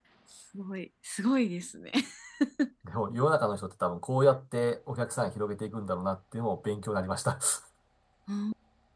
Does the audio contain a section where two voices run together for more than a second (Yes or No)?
No